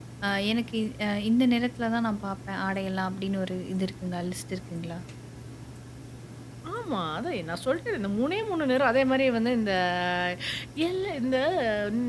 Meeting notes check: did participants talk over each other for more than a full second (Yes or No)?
No